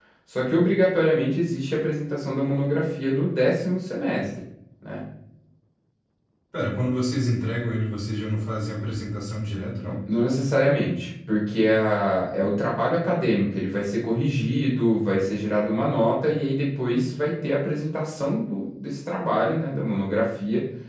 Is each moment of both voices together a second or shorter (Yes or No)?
Yes